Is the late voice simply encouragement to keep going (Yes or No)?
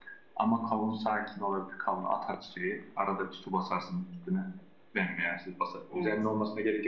Yes